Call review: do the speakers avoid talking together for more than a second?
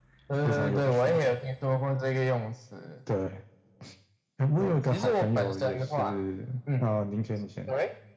No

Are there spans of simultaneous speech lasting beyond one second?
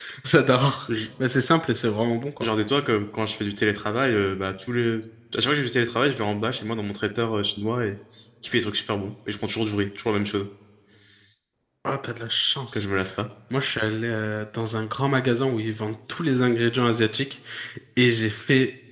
No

